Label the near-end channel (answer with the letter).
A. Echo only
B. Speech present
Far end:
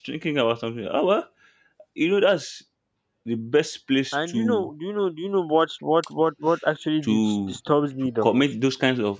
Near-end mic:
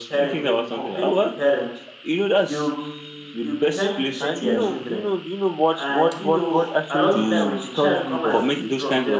B